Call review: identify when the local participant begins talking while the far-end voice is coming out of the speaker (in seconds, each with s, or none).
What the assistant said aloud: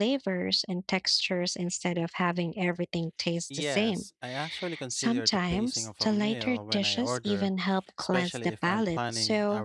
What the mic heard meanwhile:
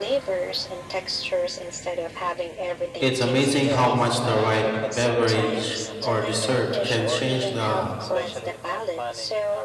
3.0 s